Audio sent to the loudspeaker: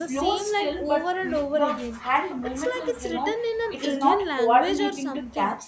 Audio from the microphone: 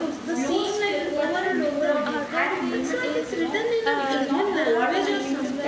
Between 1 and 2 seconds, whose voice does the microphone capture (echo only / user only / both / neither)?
both